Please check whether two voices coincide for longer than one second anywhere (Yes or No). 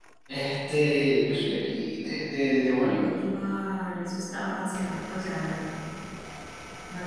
No